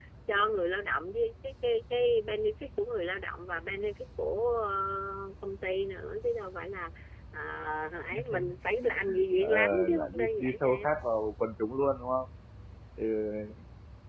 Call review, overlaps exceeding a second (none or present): present